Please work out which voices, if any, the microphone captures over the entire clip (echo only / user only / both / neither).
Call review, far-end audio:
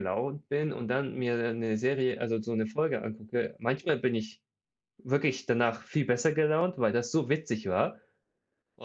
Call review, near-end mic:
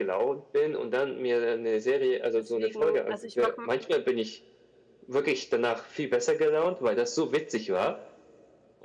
both